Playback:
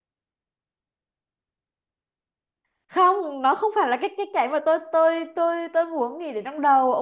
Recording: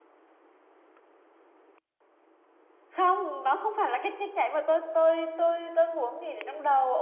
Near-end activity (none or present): none